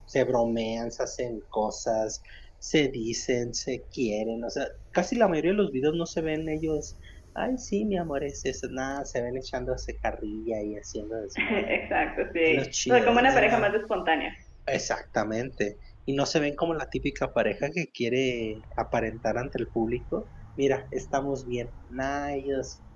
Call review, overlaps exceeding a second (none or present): present